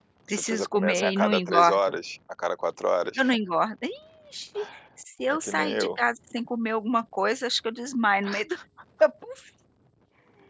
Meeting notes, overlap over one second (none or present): present